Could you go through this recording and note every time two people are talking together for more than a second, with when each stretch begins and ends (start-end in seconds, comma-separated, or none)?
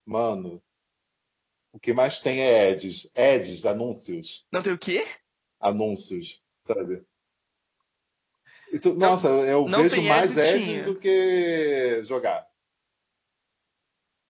9.7-10.9